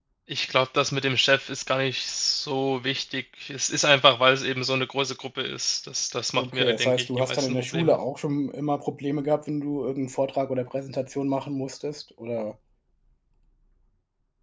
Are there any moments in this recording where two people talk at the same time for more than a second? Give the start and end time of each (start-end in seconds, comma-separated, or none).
6.4-8.0